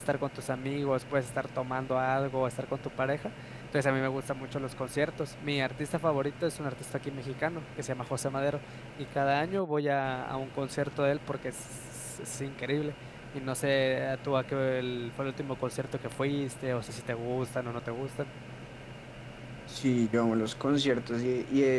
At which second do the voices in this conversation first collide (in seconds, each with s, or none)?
none